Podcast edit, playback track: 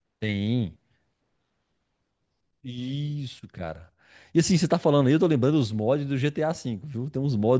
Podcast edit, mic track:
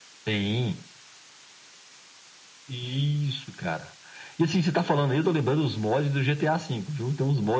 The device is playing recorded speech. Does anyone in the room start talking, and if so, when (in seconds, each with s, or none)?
none